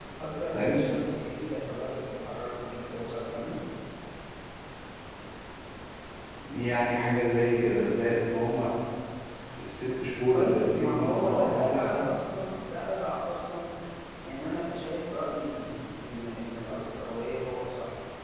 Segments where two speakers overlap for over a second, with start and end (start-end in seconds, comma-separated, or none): 10.3-12.0